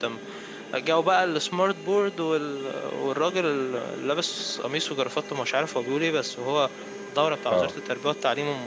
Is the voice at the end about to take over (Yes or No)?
No